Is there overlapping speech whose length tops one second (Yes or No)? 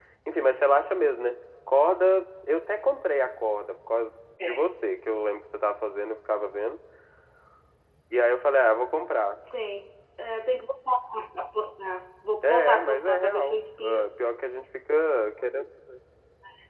Yes